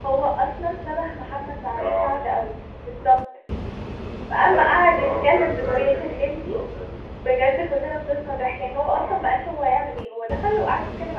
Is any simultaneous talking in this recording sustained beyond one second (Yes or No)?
Yes